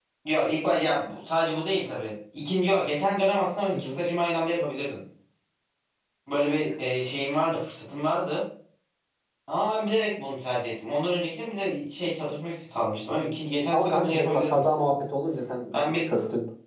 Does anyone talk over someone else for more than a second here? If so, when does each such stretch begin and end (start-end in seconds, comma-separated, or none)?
13.7-15.0